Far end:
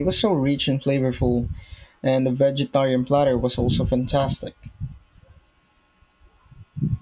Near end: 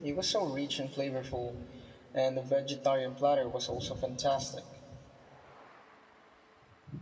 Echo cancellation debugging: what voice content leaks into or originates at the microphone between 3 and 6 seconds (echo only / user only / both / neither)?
echo only